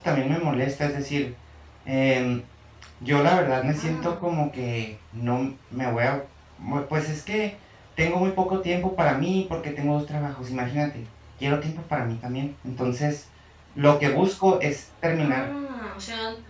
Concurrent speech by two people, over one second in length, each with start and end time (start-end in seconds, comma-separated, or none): none